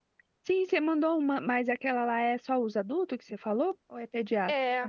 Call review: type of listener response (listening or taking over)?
taking over